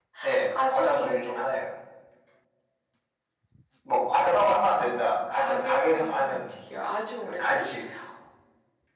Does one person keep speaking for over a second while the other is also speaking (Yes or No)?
Yes